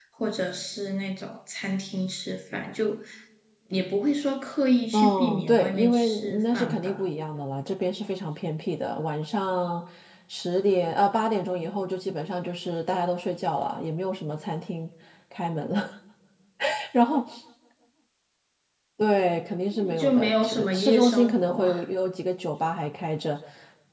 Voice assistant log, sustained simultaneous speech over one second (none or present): present